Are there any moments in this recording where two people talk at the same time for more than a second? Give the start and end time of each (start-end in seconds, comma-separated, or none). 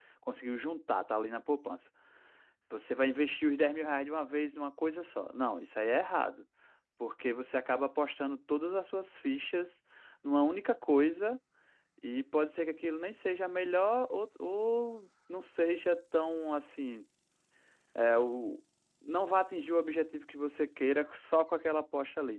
none